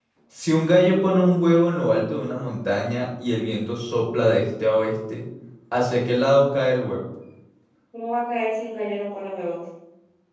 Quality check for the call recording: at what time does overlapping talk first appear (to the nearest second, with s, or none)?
none